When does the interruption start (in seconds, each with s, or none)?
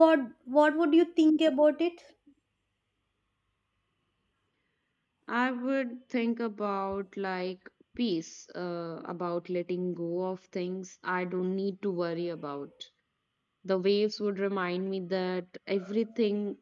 none